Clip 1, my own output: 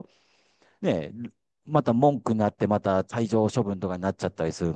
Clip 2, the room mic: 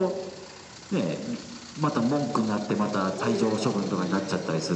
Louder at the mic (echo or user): echo